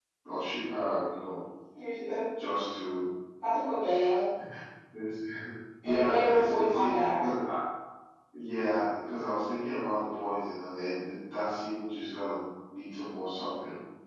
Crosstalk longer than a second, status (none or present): present